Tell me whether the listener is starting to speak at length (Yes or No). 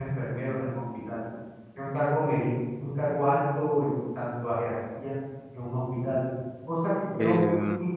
No